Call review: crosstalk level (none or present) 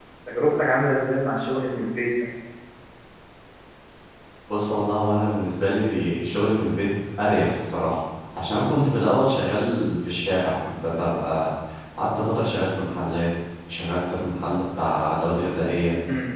none